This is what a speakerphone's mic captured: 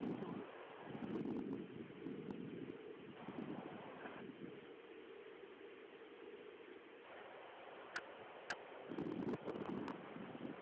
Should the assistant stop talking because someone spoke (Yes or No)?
No